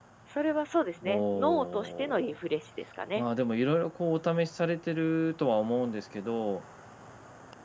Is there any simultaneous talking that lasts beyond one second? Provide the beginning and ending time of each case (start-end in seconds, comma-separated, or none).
1.0-2.4